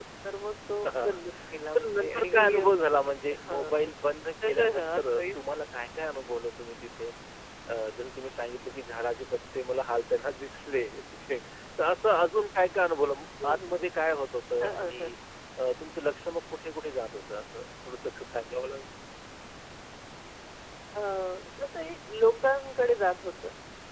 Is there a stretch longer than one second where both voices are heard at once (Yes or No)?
Yes